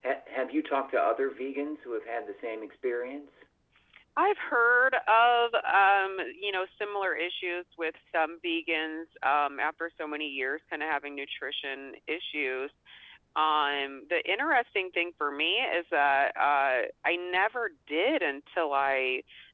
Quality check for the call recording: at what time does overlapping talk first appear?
none

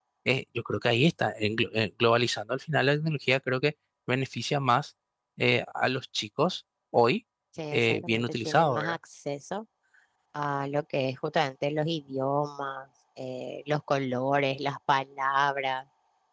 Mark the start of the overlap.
8 s

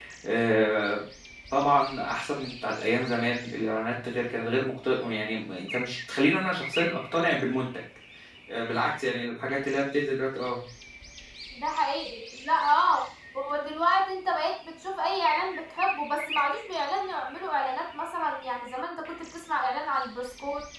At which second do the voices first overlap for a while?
none

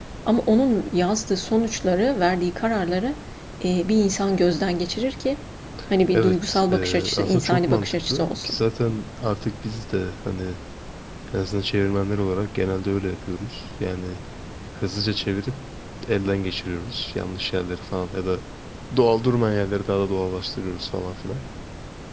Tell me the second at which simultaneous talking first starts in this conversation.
6 s

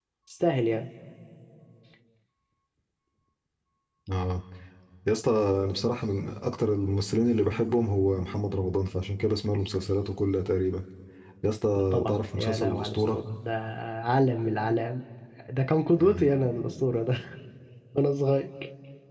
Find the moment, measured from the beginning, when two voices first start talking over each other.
12 s

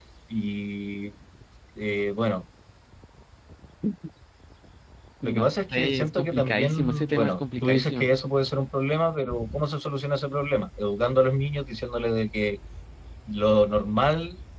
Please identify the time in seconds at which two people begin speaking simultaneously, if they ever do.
5 s

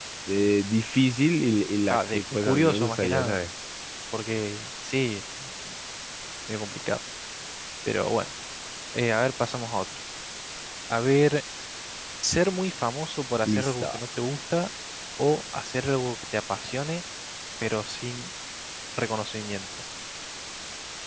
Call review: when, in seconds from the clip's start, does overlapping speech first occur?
2 s

